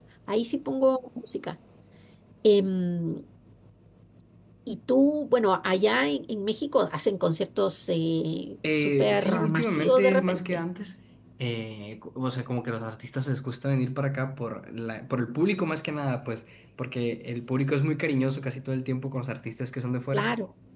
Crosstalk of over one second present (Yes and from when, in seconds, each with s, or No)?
Yes, from 8.6 s